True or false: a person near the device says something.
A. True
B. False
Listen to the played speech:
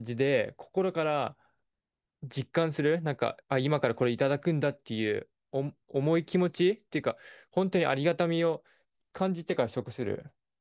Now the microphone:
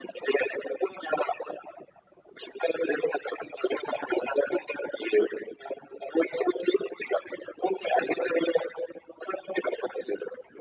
B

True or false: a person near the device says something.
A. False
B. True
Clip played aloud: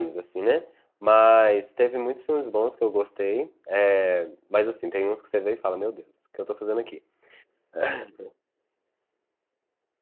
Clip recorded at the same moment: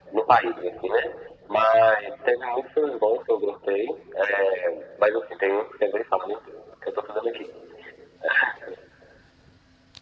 A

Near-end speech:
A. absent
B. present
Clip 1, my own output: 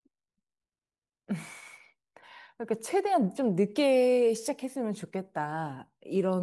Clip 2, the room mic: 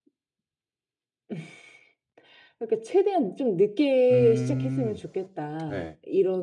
B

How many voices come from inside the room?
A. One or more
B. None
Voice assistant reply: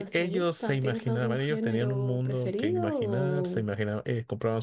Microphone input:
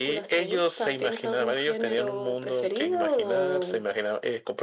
B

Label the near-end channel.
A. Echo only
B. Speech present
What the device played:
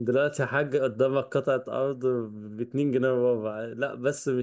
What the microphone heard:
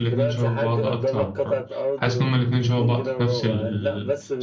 B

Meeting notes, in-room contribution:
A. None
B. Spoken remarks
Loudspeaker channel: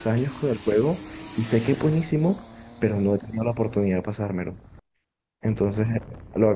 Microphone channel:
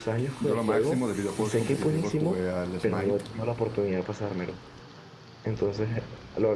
B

